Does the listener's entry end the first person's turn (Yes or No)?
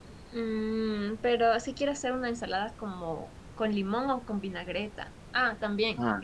No